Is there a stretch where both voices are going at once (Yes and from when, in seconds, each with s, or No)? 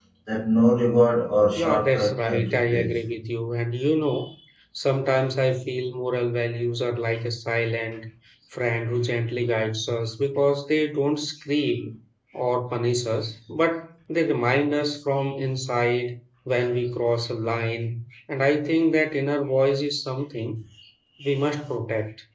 Yes, from 1.5 s